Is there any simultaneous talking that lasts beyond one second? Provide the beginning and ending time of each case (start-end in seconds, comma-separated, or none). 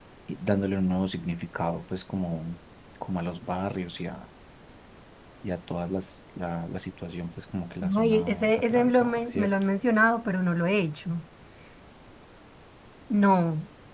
8.0-9.5